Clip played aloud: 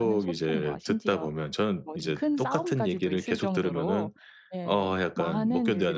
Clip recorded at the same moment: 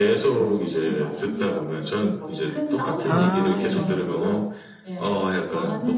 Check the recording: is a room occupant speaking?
Yes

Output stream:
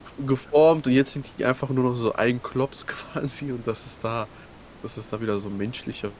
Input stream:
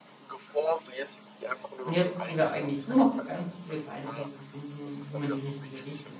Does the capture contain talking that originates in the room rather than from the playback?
Yes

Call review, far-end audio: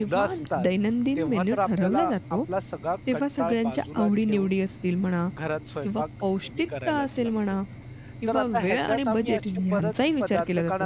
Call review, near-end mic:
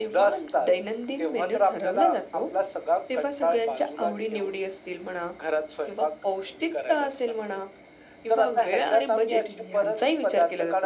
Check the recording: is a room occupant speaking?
No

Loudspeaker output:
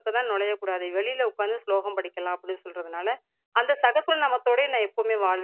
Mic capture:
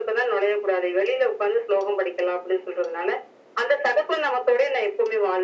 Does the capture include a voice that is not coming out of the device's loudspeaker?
No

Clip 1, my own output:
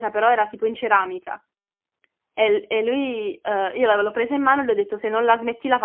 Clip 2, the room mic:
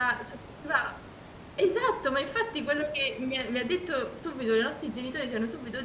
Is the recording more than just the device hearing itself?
Yes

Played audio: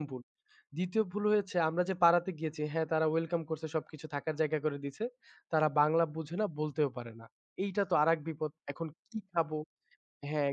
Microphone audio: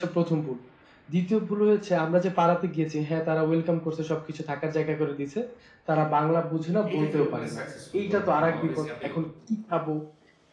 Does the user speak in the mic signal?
Yes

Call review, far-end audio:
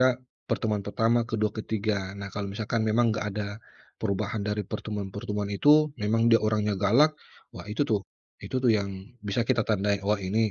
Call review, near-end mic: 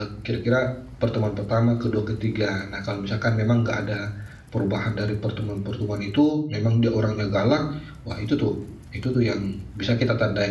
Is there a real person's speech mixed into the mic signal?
No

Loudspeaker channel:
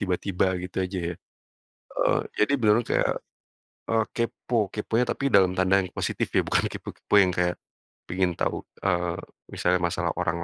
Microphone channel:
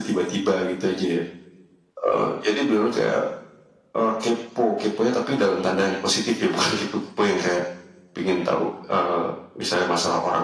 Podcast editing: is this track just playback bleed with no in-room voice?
Yes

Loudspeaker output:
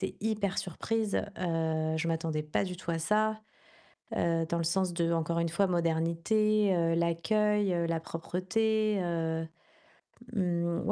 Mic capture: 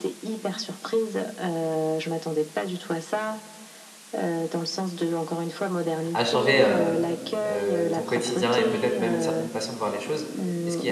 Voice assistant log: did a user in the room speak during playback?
Yes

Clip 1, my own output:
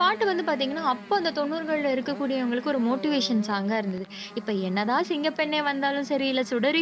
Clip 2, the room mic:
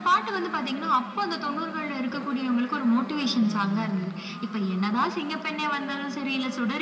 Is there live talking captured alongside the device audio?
Yes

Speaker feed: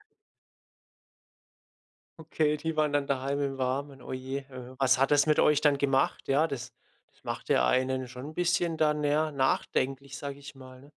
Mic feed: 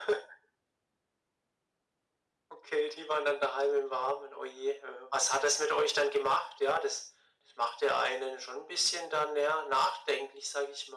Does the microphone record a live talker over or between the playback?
No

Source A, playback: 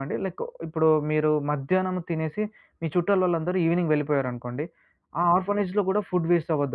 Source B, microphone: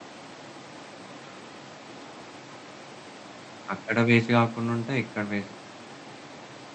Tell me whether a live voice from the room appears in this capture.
Yes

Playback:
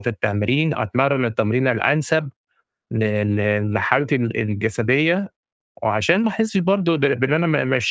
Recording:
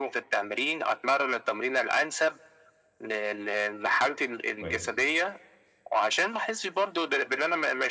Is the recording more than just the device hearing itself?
Yes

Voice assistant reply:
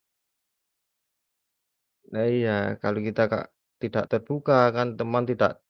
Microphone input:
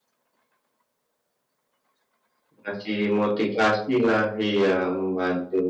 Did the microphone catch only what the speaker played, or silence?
No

